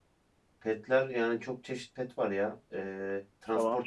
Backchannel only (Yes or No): No